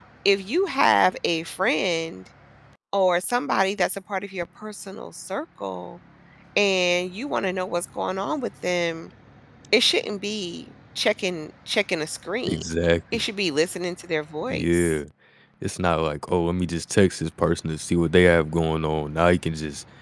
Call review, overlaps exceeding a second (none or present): none